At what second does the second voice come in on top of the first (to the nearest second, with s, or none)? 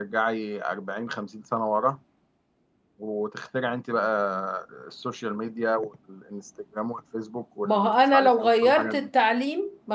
8 s